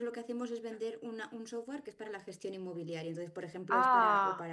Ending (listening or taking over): listening